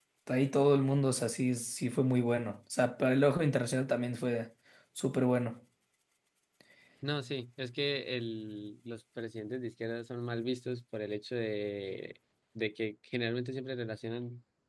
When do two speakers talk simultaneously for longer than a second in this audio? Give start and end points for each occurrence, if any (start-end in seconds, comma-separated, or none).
none